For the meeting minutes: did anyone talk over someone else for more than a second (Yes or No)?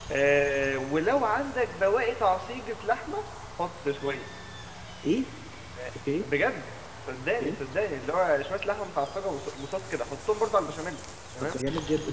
No